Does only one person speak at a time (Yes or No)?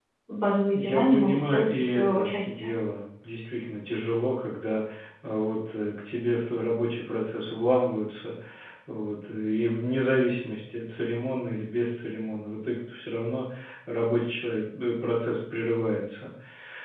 No